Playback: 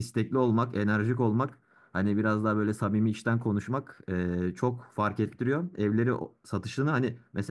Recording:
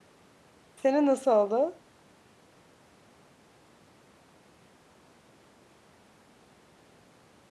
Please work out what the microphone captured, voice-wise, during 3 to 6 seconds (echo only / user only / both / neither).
neither